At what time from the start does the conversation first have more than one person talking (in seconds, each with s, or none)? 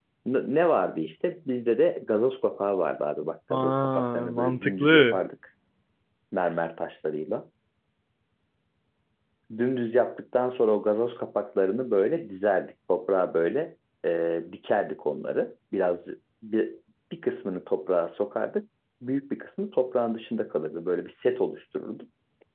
3.5 s